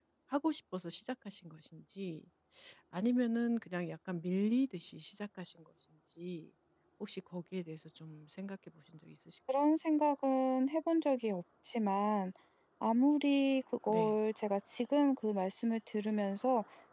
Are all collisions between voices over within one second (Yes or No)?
Yes